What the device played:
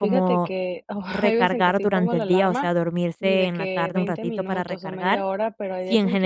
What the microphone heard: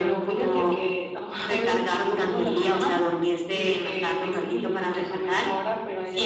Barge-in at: none

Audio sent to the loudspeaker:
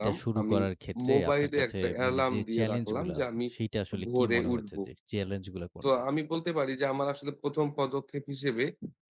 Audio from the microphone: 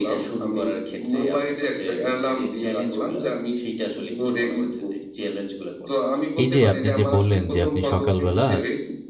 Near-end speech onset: 6.4 s

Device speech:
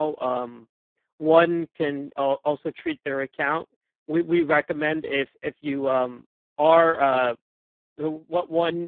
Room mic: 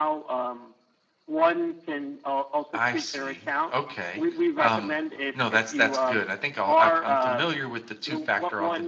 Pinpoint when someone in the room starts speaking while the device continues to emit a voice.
2.7 s

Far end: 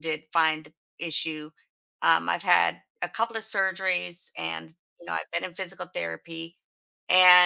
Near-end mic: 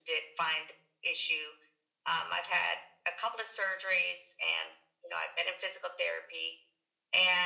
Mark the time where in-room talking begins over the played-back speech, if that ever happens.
none

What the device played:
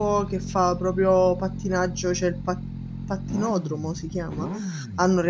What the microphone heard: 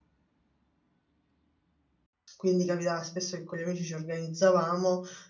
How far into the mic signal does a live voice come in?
2.4 s

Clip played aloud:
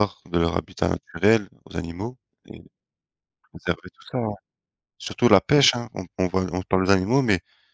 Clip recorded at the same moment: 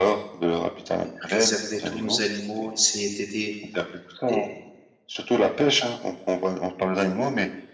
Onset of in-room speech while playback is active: 1.0 s

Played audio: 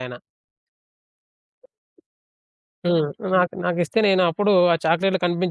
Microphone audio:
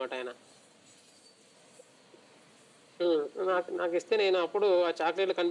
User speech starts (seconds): none

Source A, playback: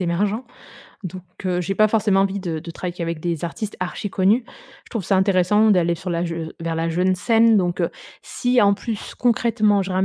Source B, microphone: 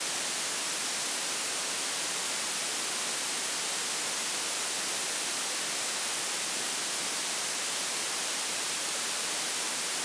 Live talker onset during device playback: none

